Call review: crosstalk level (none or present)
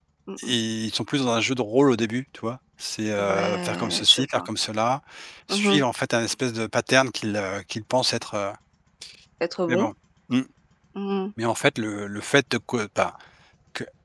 present